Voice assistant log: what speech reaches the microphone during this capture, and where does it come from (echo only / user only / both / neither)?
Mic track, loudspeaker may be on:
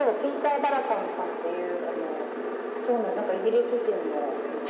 echo only